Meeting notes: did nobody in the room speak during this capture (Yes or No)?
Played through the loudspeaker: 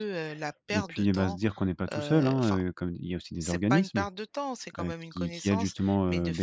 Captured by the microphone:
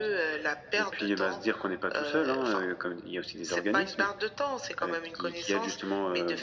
Yes